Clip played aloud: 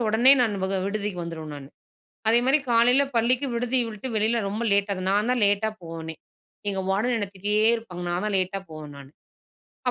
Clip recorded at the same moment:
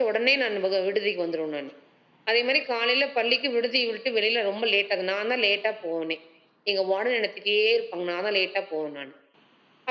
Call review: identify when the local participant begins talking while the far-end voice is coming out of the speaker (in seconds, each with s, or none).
none